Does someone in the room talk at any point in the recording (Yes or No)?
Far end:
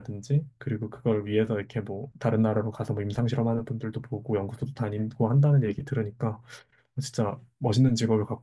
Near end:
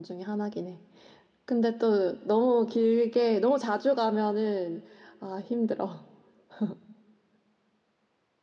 Yes